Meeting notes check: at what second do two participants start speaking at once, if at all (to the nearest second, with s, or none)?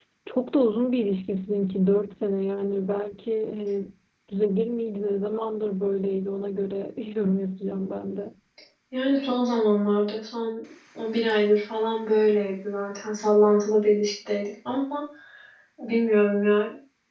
none